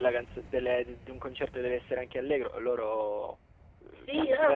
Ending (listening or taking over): taking over